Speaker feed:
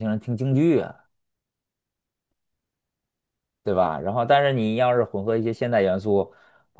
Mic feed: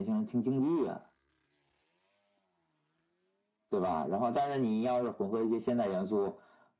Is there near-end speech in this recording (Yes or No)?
No